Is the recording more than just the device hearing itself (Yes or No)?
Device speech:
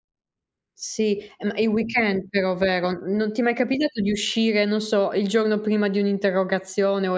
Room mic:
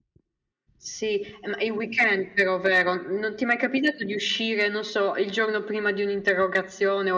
No